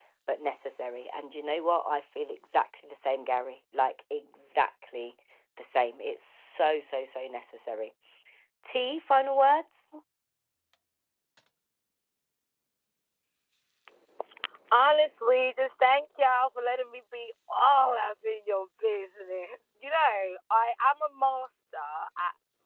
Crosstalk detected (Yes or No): No